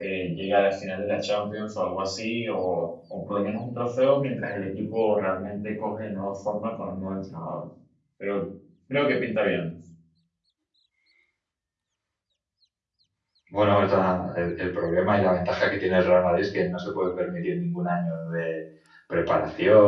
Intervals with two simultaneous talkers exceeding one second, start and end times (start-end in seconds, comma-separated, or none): none